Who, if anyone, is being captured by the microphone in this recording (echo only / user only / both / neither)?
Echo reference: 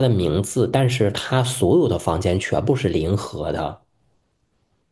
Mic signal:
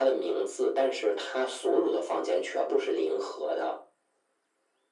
echo only